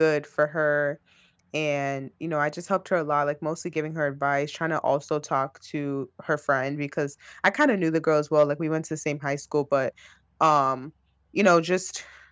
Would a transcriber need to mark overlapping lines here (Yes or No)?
No